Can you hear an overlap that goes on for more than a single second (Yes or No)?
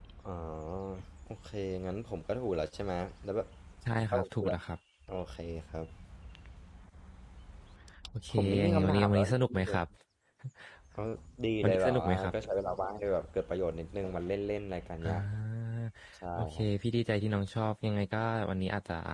Yes